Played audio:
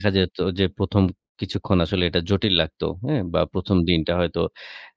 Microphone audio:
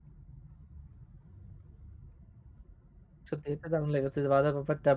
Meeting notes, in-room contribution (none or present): present